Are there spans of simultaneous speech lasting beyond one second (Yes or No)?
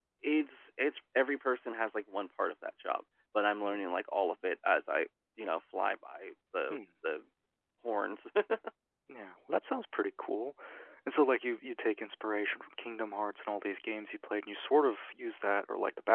No